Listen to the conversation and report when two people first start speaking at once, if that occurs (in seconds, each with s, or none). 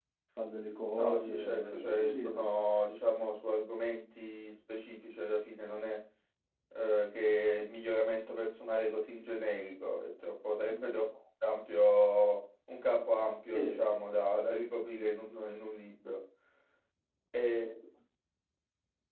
1.0 s